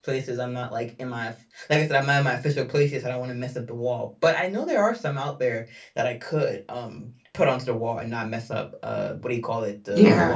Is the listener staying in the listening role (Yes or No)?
No